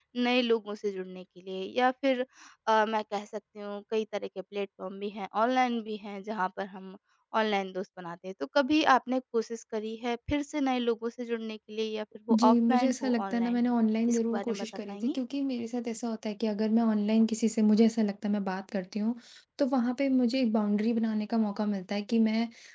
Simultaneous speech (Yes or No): Yes